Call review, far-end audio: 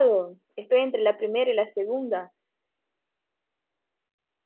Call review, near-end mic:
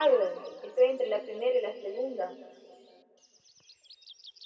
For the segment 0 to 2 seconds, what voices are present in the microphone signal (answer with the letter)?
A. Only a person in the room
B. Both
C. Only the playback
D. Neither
C